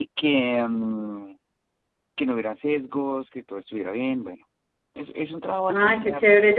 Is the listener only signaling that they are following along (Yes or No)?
No